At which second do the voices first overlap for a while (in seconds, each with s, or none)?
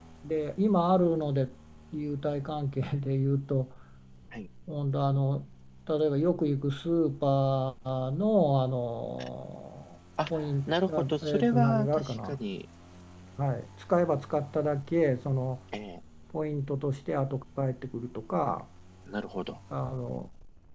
10.2 s